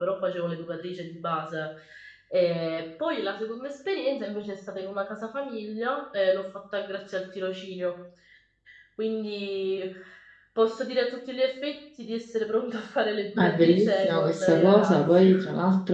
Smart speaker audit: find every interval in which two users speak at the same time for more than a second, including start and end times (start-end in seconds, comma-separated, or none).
13.4-15.3